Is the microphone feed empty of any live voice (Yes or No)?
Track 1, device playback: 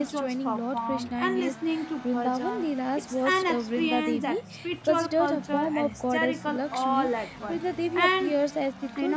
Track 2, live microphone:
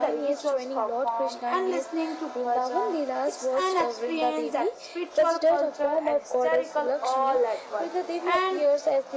Yes